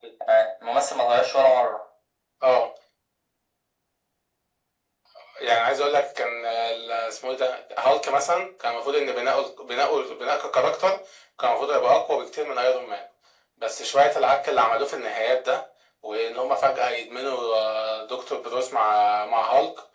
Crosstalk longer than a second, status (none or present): none